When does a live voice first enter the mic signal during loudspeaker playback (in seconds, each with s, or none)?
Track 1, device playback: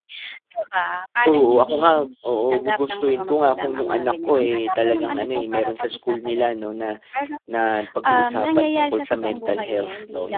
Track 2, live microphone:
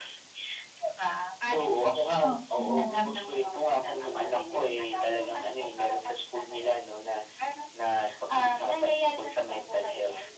2.2 s